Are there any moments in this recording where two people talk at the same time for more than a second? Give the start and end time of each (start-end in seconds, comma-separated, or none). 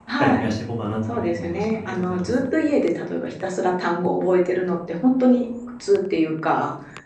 1.1-2.5